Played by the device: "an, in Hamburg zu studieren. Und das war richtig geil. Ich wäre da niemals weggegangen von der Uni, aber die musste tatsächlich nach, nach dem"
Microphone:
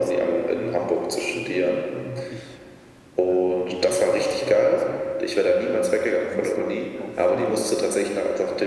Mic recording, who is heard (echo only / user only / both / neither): both